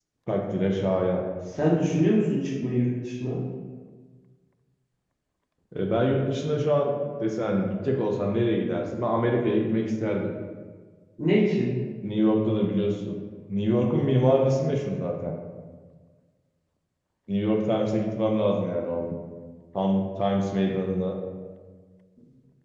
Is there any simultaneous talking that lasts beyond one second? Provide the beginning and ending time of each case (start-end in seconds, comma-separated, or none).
none